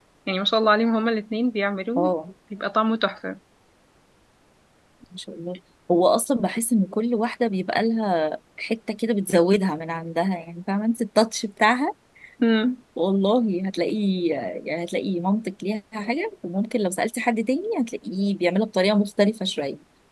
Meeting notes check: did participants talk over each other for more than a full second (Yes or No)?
No